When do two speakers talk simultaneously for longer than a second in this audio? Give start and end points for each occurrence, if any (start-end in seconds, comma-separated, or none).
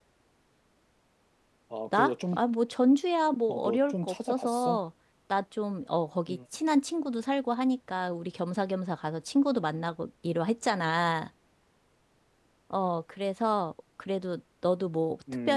3.5-4.8